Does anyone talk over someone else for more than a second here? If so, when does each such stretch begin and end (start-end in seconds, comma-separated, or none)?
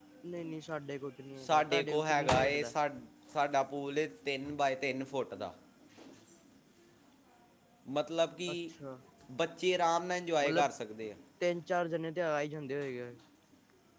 1.4-2.7